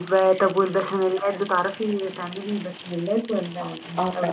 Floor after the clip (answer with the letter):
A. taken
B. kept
A